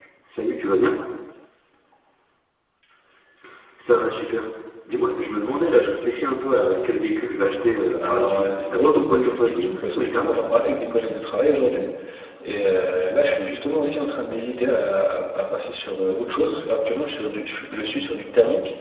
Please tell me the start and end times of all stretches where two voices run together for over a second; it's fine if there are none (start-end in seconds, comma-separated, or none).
8.0-10.4